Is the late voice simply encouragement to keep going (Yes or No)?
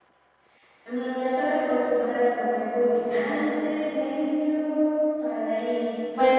No